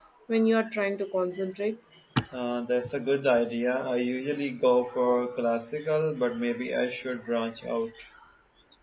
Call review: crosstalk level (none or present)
none